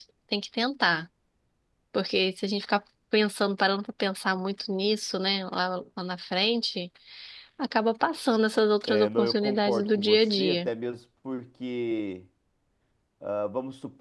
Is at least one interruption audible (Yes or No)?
Yes